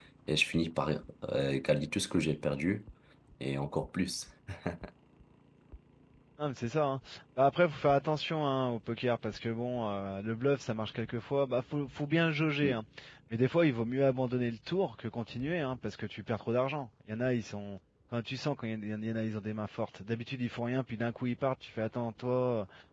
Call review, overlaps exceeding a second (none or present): none